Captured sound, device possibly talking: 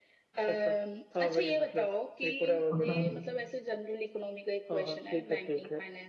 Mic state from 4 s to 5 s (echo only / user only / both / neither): echo only